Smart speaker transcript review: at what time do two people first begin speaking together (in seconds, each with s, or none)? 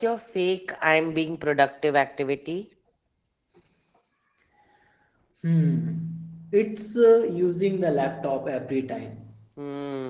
none